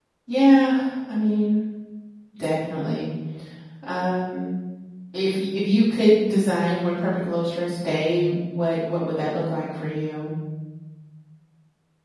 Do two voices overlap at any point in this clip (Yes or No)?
No